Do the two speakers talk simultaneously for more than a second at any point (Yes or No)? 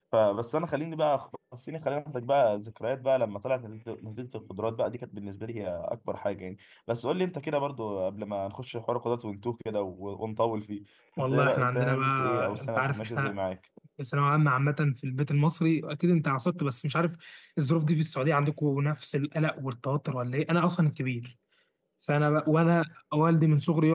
Yes